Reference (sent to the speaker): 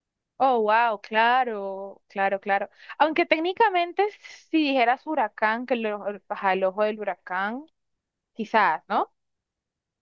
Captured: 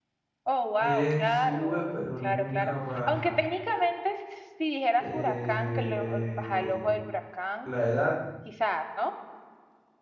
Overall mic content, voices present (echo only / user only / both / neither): both